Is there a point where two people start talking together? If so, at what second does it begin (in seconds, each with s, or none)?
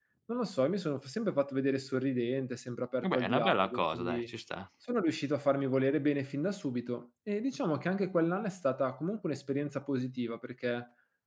3.0 s